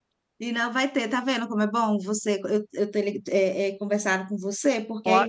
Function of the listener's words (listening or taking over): listening